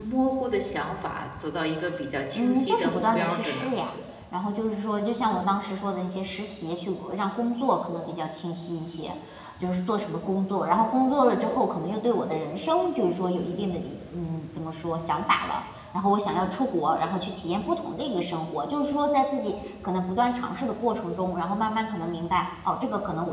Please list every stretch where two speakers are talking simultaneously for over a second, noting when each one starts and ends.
2.4-3.8

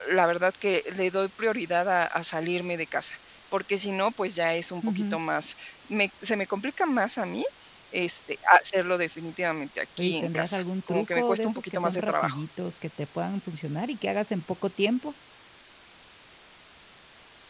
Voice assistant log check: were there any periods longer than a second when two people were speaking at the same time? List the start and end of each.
10.0-12.4

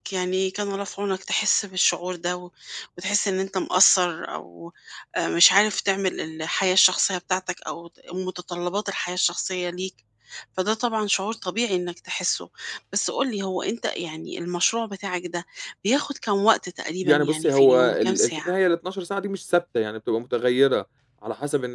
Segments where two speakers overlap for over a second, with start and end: 17.0-18.5

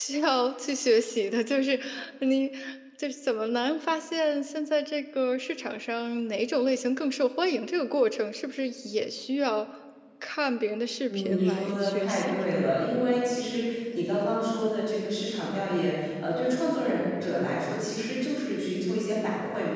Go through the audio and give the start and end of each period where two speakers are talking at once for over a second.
11.1-12.4

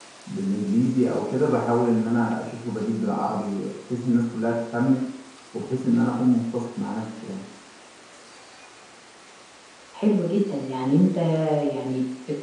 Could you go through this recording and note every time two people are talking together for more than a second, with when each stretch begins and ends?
none

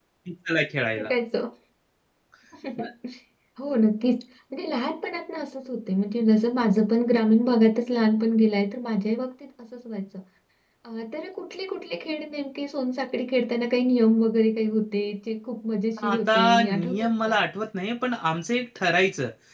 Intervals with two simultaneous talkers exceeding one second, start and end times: 16.1-17.4

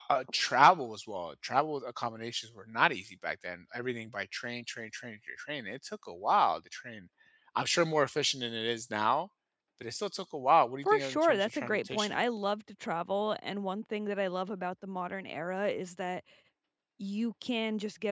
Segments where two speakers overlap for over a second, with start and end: 10.8-12.2

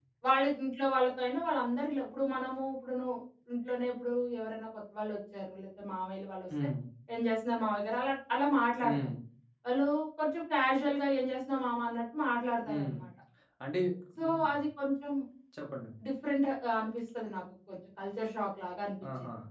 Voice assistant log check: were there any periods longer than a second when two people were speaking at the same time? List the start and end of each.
none

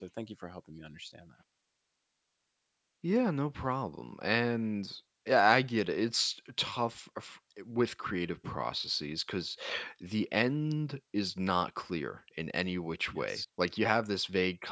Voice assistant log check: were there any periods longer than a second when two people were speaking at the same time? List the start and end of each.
none

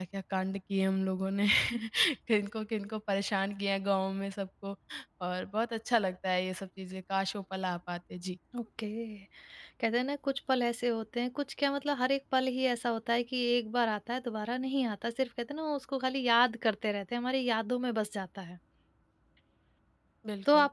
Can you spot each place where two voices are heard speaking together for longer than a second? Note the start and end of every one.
none

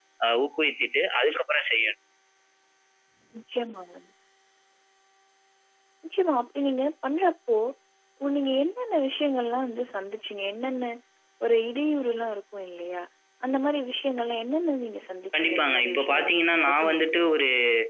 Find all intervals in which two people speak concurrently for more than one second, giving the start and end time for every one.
15.3-17.2

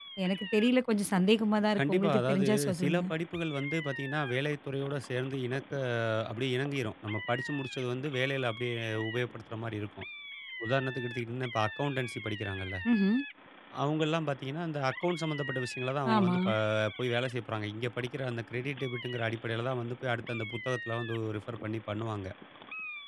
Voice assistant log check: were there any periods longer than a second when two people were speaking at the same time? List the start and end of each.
1.8-3.0

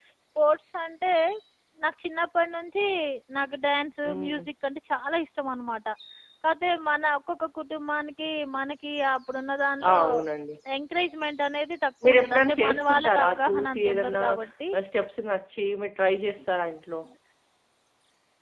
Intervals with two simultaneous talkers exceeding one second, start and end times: 12.0-14.2

